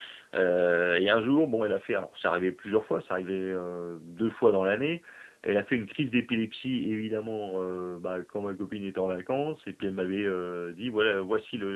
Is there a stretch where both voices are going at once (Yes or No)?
No